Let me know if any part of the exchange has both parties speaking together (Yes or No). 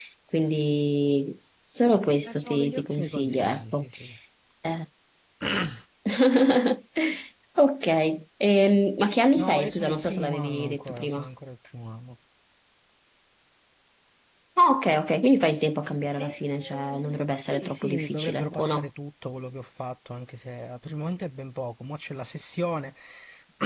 Yes